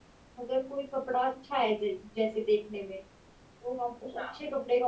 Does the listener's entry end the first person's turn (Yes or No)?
No